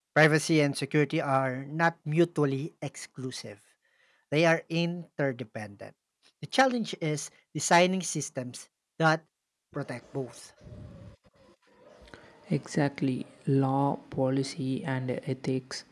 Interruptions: none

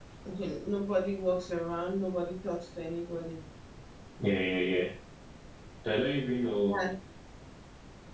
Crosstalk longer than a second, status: none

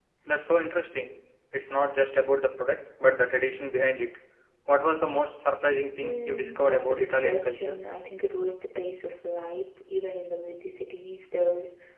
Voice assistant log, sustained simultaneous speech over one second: present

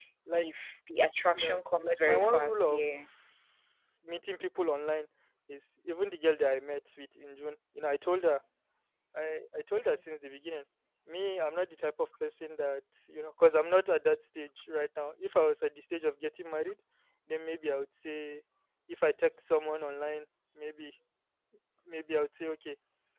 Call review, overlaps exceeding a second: present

